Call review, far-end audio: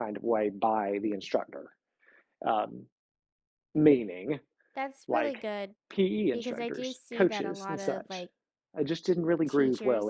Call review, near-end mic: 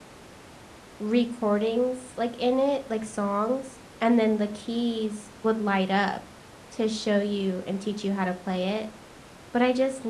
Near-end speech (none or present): present